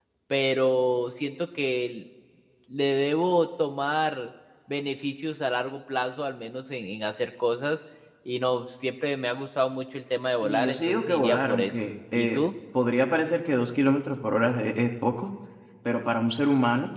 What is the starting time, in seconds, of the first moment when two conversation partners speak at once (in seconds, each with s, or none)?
10.4 s